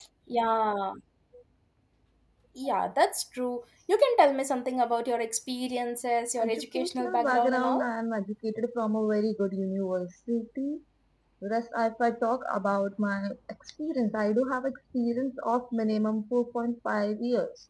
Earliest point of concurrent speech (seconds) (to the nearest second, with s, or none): 6 s